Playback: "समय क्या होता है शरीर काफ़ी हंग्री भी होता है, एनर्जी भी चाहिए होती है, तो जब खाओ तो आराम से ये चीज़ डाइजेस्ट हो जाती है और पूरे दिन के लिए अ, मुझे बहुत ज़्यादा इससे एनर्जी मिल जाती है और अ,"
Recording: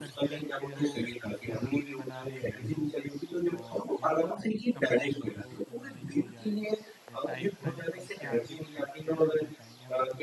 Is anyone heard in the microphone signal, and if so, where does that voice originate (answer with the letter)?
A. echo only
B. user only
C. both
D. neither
C